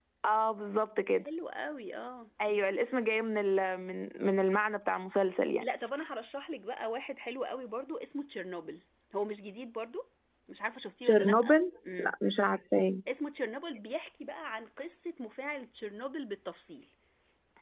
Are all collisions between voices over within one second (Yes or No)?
Yes